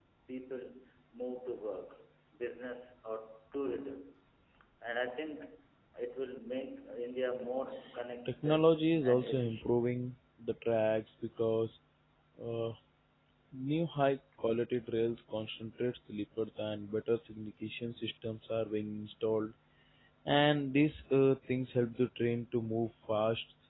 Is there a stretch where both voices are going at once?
Yes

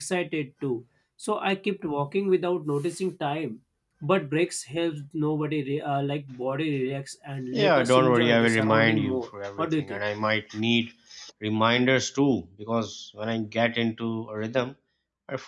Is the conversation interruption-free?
No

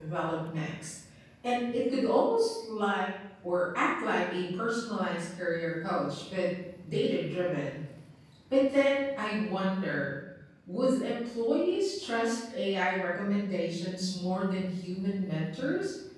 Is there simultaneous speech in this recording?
No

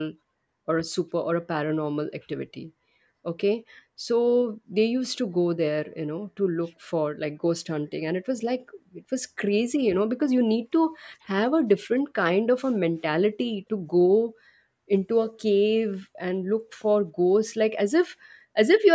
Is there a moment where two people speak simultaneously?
No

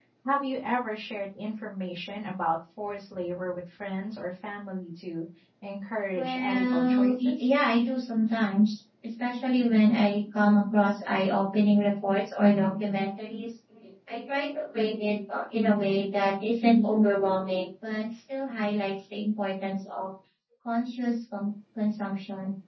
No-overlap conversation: No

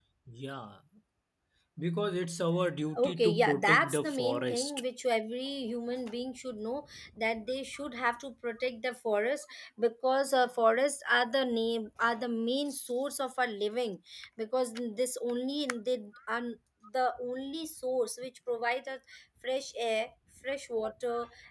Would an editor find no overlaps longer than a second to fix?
No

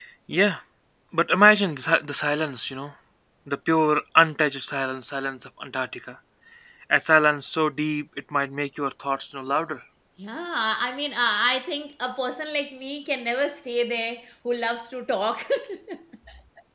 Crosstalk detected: No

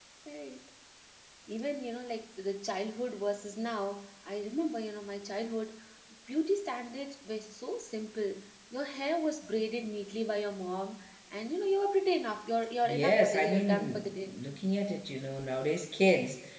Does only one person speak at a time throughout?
No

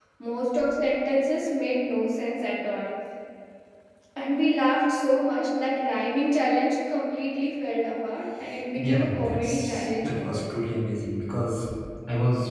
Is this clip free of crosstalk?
No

